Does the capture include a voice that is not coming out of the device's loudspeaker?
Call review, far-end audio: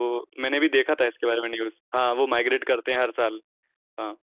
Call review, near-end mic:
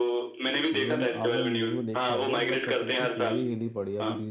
Yes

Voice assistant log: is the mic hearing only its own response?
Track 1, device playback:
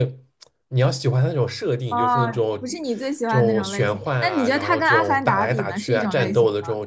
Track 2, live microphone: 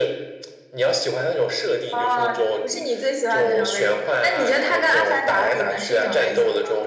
Yes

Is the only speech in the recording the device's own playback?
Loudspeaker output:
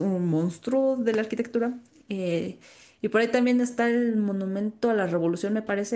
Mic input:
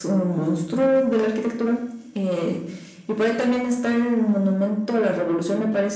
Yes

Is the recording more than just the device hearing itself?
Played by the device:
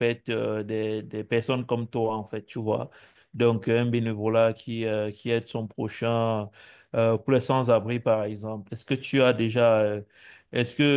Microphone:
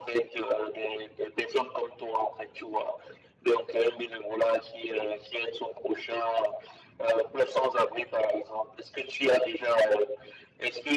No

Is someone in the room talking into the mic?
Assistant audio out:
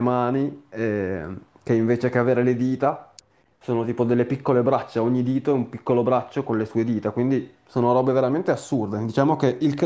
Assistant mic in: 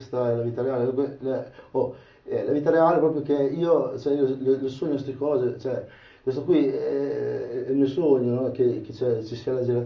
Yes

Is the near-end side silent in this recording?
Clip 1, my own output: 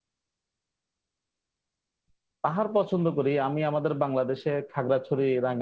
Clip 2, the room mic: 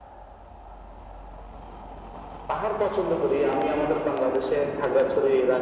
Yes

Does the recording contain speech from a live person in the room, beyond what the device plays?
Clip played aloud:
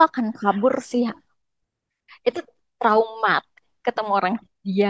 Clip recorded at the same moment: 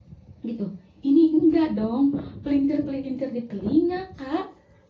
Yes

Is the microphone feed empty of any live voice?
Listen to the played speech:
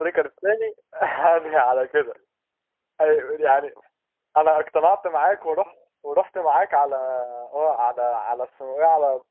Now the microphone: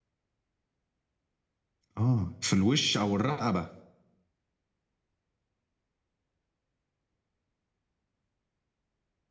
No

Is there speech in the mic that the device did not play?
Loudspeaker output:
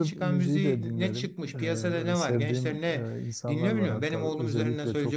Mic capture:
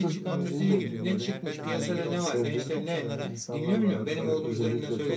Yes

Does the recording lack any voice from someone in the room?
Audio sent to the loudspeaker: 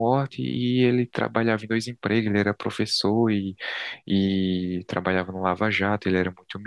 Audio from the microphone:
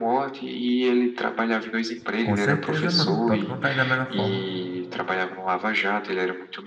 No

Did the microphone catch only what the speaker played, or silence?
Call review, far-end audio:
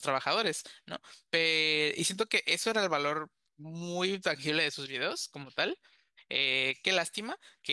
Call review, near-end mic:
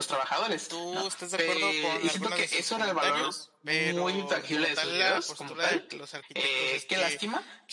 No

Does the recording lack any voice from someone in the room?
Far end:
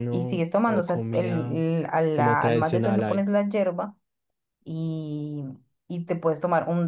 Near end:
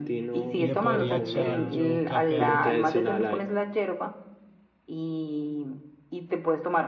No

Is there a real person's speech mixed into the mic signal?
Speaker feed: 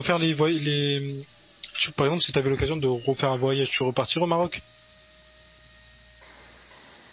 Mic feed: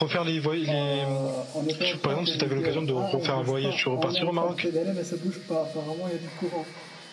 Yes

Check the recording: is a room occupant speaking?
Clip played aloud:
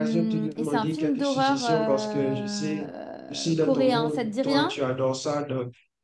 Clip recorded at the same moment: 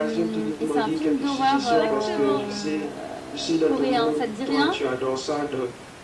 Yes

